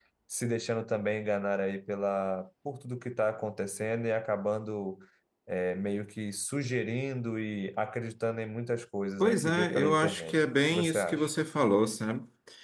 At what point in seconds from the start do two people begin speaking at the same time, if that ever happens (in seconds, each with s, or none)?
9.2 s